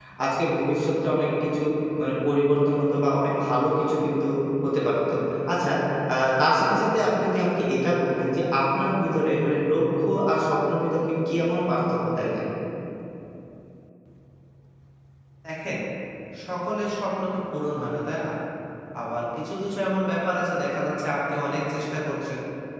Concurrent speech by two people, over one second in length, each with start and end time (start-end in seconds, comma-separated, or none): none